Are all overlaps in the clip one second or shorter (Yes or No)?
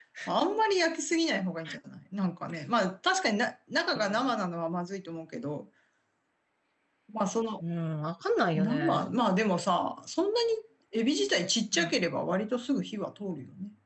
Yes